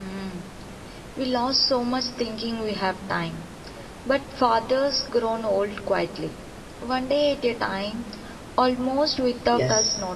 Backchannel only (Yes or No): No